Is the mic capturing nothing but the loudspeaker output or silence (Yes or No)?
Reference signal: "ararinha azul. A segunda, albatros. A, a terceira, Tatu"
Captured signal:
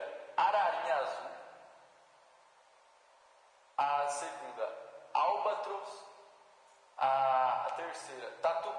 Yes